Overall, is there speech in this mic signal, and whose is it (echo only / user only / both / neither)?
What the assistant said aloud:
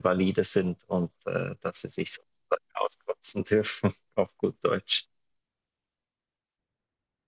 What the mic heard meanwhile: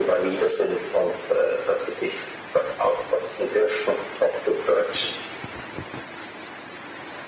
echo only